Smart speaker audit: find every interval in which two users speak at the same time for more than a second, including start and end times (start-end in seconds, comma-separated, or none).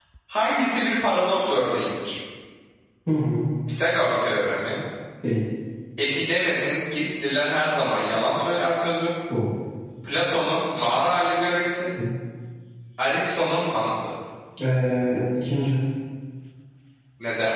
none